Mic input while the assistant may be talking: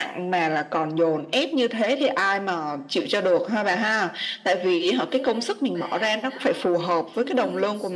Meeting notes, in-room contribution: present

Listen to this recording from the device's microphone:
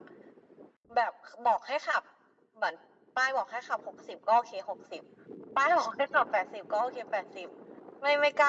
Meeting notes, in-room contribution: none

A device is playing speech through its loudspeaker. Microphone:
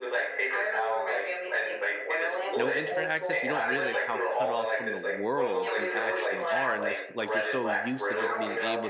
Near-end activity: present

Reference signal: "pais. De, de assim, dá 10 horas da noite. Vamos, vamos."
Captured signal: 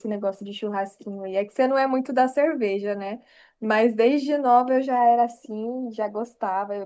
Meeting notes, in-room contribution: present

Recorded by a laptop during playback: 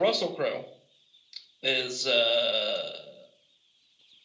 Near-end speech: none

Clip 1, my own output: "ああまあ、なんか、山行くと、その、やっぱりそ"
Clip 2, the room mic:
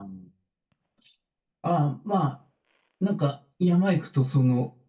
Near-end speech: none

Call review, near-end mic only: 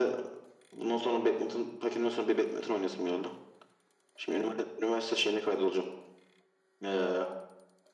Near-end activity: none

